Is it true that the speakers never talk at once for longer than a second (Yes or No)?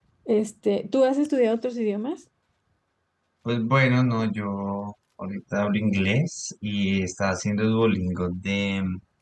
Yes